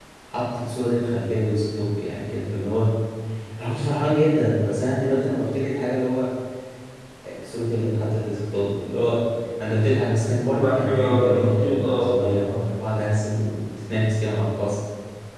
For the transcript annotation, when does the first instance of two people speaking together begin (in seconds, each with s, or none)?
10.6 s